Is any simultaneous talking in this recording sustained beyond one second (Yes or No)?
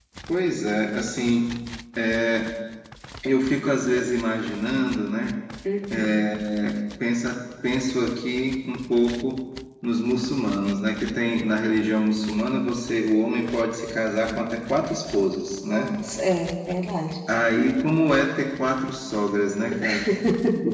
No